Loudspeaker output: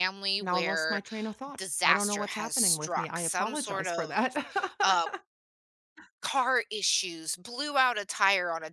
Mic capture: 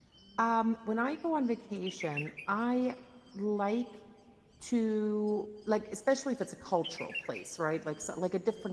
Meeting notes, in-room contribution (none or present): present